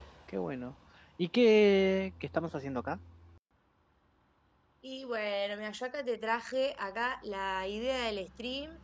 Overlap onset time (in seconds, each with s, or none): none